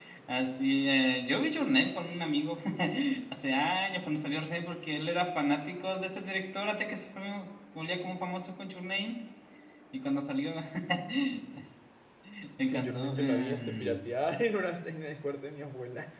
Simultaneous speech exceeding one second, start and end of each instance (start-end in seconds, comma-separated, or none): 12.6-14.0